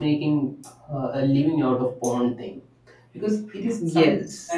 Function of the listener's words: listening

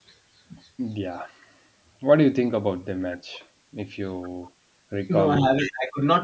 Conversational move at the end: taking over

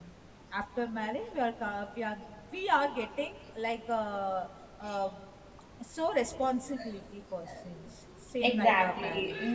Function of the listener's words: taking over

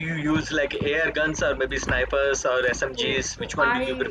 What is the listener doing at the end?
taking over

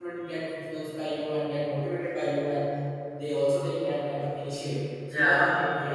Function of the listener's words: listening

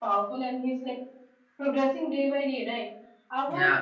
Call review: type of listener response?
listening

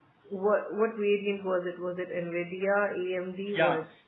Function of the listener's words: taking over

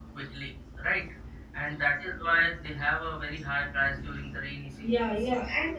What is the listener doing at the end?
taking over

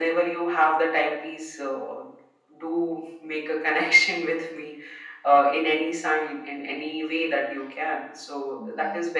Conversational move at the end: listening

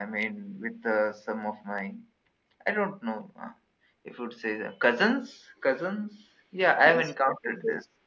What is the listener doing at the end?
taking over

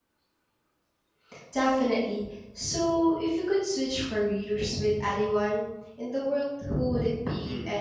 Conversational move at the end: taking over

